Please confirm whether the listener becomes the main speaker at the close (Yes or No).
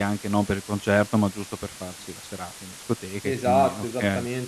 Yes